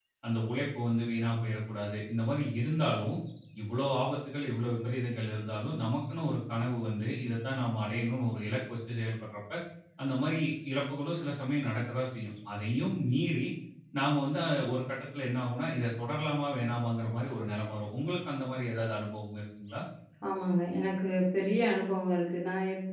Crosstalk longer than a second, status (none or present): none